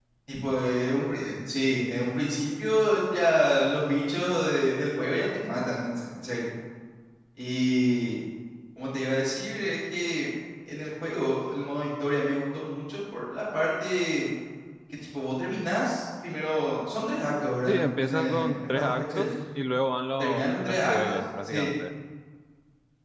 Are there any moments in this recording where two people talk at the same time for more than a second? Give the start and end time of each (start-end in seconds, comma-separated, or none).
17.7-19.3, 20.2-21.7